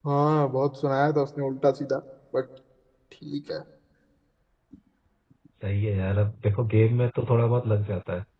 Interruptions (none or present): none